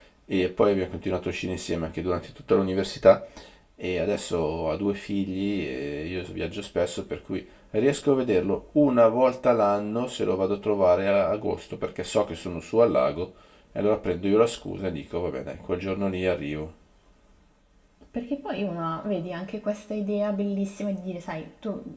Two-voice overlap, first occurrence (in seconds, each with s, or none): none